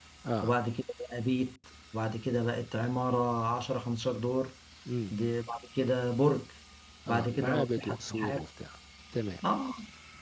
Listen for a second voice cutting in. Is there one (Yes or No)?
Yes